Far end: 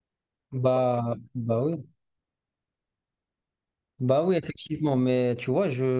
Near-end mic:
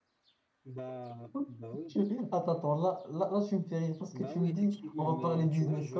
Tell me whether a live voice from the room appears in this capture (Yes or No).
Yes